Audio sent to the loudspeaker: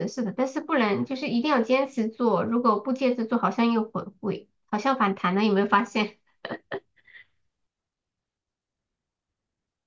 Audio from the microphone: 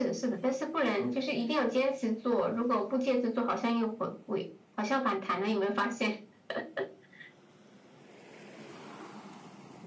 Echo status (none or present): present